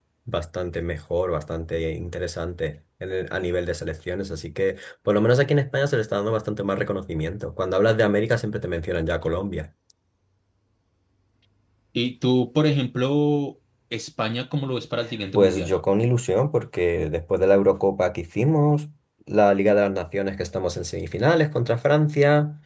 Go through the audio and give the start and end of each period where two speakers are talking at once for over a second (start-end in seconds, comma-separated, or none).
none